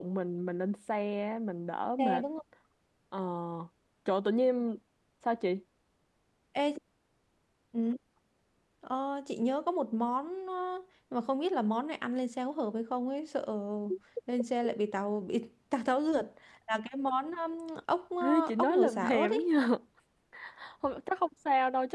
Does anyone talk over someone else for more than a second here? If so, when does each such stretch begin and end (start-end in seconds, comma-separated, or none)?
18.2-19.5